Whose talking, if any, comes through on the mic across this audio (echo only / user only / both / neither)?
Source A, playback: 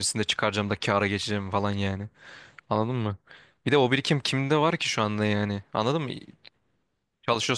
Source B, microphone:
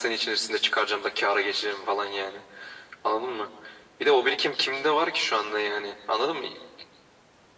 echo only